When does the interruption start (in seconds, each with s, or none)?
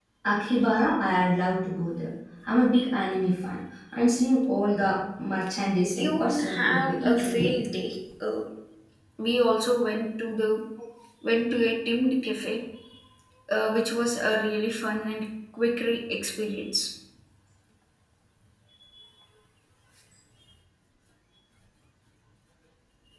6.0 s